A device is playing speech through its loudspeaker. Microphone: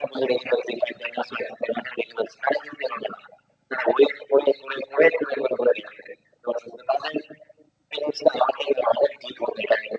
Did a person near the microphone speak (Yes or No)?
No